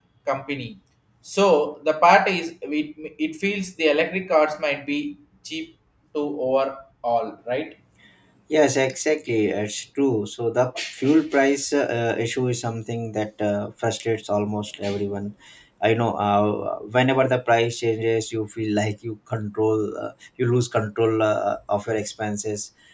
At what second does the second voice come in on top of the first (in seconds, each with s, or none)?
none